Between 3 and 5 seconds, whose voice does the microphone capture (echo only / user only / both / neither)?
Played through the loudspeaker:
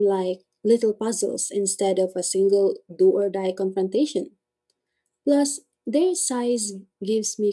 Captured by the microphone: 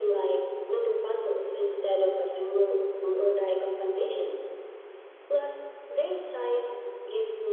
echo only